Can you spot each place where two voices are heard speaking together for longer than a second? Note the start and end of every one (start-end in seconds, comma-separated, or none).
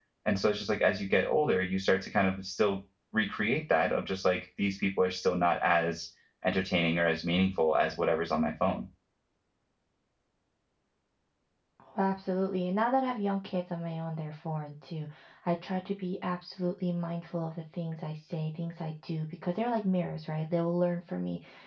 none